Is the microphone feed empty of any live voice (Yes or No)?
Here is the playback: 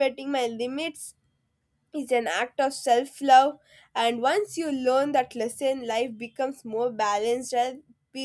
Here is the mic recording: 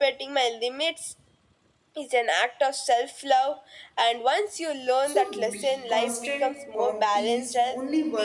No